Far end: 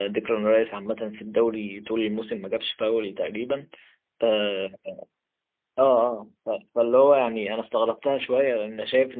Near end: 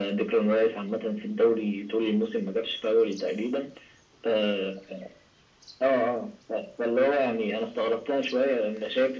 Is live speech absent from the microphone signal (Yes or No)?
Yes